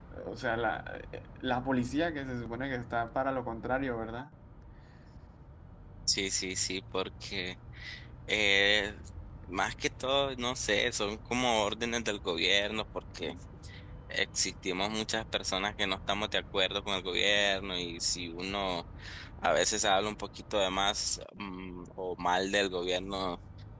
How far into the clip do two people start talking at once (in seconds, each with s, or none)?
none